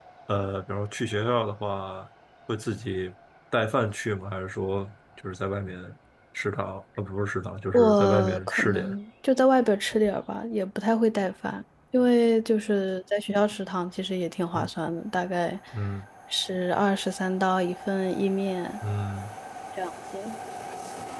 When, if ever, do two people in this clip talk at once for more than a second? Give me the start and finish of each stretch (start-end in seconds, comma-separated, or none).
7.7-8.9